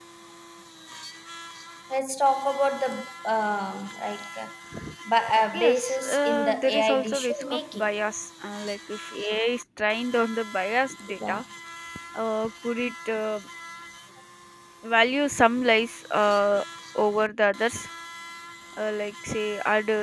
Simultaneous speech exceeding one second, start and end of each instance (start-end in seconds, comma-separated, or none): 5.5-7.9